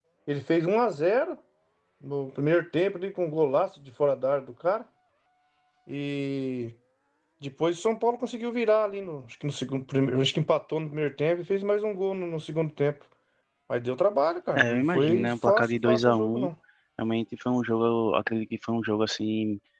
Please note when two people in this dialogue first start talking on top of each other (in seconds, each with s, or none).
14.6 s